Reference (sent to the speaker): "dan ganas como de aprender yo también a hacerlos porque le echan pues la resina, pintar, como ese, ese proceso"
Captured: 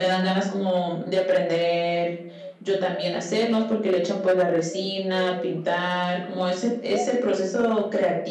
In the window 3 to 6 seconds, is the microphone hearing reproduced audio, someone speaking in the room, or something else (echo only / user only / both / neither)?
echo only